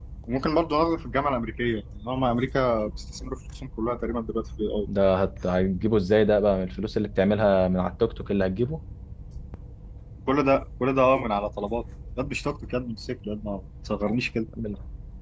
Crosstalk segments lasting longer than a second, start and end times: none

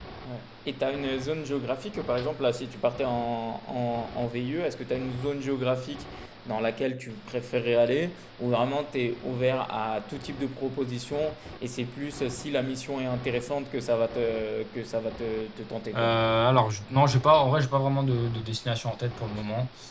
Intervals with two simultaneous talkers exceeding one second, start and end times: none

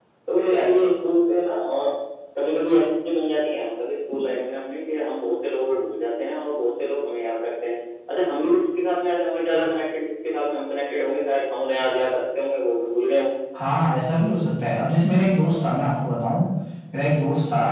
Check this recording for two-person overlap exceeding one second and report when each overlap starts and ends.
none

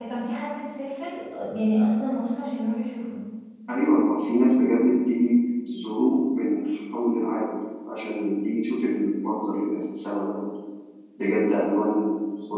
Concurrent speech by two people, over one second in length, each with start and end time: none

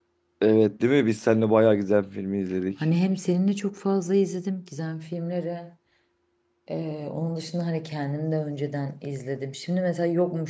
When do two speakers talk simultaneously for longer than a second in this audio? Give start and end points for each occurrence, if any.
none

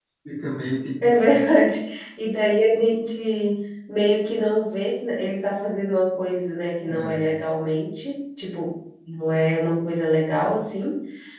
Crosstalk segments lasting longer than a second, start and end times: none

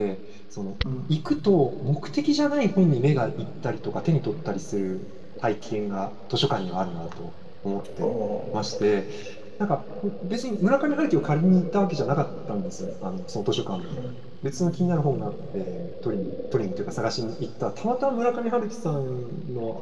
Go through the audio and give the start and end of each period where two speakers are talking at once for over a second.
none

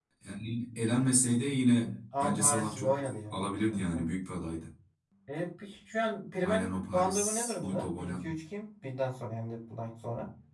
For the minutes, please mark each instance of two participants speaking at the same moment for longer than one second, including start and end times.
2.2-4.1, 6.4-8.2

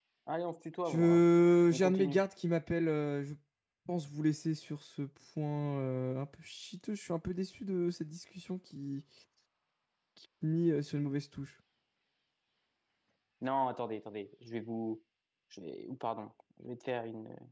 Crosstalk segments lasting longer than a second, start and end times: none

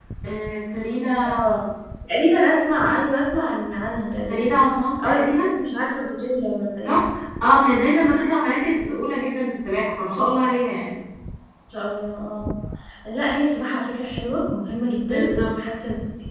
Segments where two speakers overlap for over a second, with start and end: none

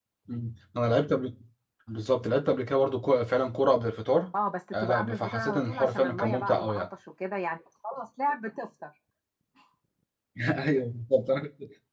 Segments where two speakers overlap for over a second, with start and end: 4.7-6.8

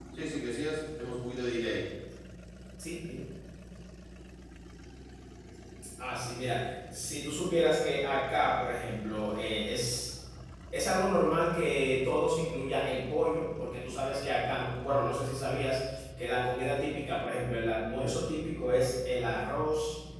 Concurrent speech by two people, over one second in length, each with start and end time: none

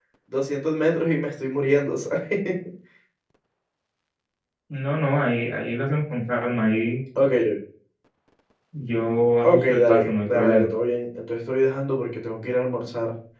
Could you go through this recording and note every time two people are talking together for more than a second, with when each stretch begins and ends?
9.4-10.7

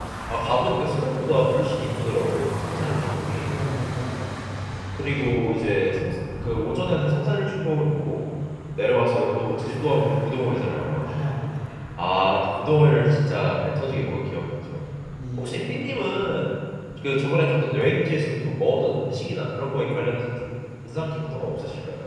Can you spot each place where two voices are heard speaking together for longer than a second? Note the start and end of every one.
none

